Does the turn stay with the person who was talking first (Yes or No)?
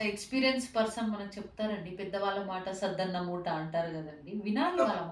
No